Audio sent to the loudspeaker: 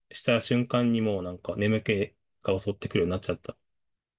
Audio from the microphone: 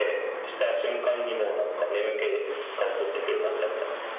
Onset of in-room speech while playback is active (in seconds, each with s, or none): none